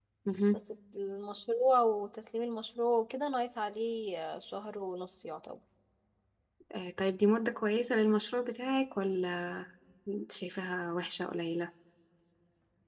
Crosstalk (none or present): none